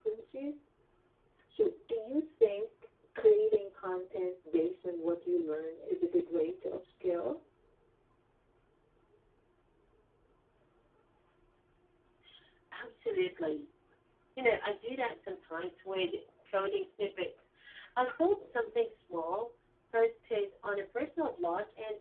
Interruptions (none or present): none